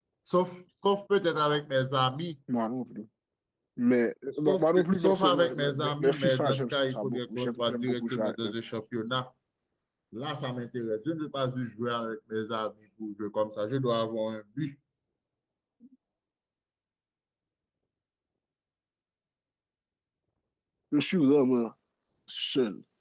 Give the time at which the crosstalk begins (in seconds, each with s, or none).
4.5 s